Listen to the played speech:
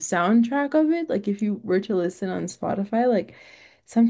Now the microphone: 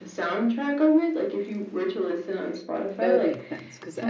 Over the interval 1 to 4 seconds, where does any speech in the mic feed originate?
both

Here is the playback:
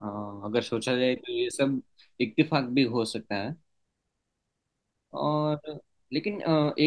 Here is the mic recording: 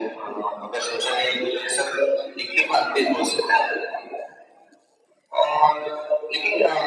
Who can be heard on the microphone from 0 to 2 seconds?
echo only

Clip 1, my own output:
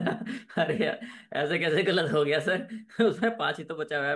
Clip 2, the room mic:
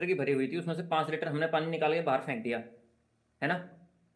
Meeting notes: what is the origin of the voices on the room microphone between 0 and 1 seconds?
user only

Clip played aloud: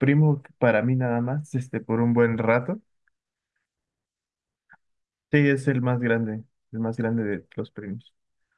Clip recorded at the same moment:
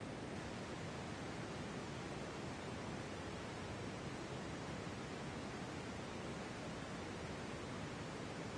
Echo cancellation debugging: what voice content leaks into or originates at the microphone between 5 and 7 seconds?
neither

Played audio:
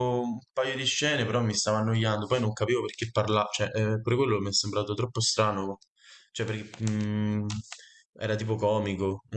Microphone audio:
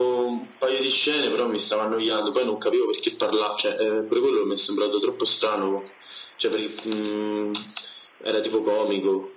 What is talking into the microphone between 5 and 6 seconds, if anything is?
echo only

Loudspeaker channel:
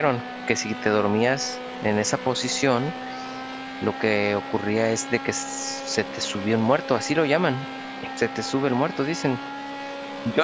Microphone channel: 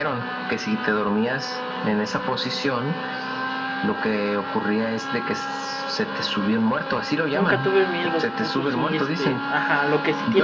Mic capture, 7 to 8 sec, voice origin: both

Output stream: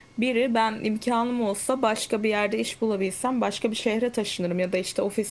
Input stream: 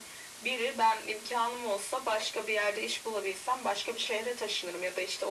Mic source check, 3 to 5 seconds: echo only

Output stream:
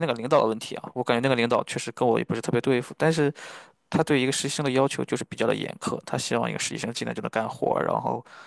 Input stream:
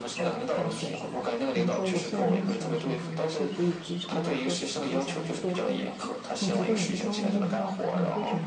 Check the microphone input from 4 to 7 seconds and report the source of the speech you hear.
both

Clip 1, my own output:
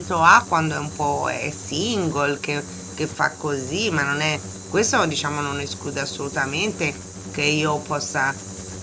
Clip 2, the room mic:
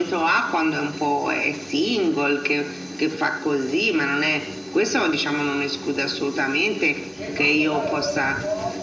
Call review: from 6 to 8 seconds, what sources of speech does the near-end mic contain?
both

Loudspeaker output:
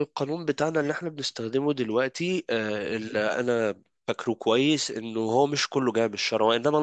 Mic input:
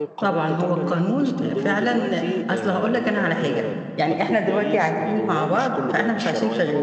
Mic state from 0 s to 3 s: both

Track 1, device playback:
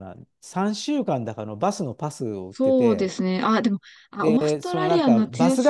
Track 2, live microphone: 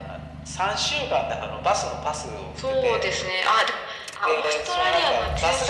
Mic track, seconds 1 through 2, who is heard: echo only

